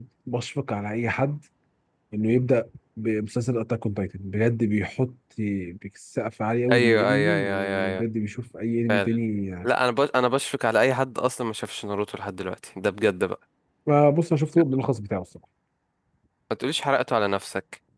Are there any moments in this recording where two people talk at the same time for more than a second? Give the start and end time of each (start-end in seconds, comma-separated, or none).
6.7-8.0